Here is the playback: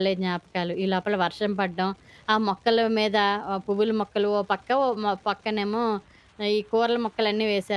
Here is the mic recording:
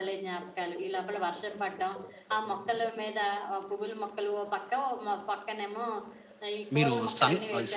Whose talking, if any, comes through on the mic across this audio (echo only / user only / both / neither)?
both